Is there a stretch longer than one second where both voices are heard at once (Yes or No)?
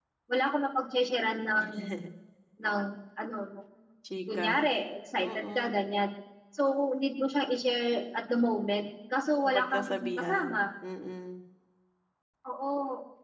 Yes